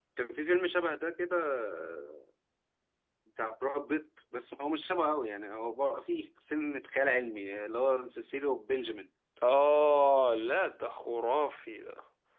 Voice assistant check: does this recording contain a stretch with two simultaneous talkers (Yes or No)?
No